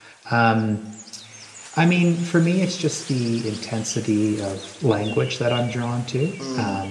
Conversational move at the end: listening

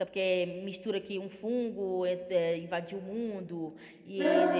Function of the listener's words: taking over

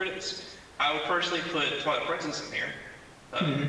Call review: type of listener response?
taking over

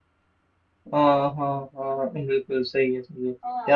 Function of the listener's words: listening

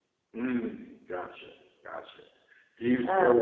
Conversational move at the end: listening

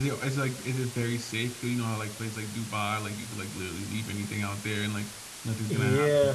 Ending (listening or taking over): taking over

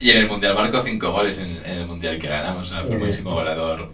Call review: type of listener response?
listening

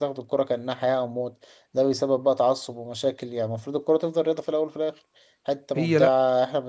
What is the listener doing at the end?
listening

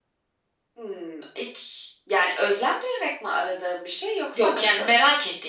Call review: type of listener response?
taking over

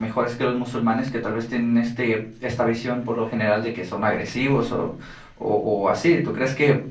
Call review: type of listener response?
listening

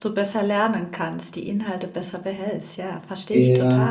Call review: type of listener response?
taking over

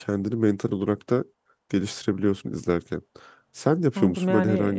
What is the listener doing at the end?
taking over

